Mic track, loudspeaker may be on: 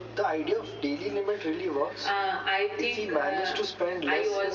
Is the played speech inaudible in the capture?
No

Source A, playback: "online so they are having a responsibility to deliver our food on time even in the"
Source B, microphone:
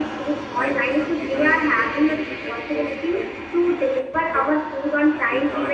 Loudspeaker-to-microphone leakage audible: Yes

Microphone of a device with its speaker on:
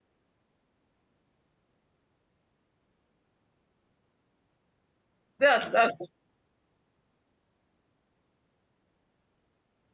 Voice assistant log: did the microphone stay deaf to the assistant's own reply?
Yes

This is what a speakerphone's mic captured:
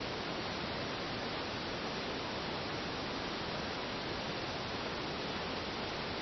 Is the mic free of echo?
Yes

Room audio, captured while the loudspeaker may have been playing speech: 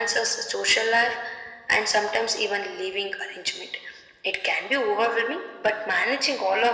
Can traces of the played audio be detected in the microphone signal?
Yes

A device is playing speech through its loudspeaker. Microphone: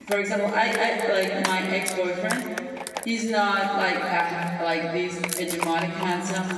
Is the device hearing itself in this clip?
No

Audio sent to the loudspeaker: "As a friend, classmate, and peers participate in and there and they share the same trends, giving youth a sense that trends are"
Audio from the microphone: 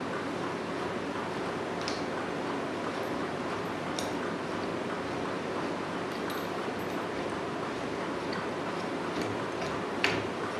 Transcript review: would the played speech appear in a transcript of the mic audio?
No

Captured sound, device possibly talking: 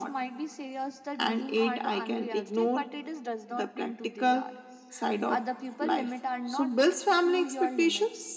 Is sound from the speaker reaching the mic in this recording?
Yes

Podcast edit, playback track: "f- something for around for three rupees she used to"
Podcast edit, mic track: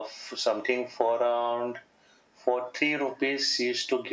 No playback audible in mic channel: No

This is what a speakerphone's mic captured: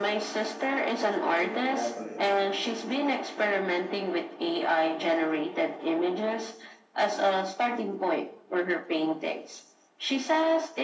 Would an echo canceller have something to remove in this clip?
Yes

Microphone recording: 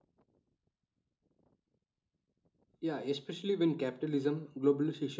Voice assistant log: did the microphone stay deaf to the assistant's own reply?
Yes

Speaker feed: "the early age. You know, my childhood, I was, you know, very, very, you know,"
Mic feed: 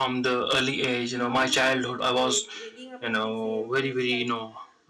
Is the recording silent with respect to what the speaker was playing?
No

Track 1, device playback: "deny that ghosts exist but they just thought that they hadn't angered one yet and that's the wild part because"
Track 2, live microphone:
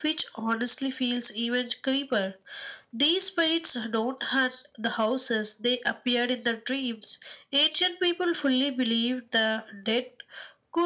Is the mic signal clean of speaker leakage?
Yes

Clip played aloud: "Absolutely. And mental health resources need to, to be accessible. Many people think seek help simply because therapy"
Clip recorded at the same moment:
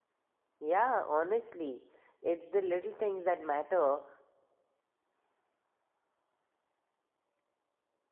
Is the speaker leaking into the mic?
No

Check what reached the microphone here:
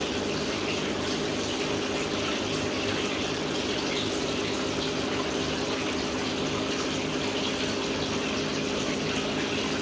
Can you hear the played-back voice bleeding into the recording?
No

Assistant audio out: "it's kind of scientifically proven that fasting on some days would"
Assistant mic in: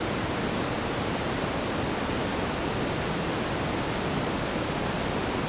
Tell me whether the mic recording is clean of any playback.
Yes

